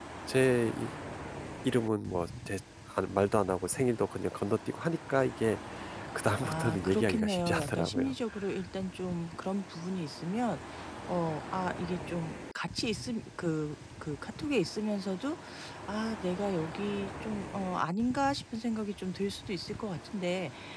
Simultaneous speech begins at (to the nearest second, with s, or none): 6 s